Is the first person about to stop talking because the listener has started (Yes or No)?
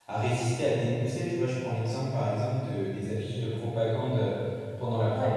No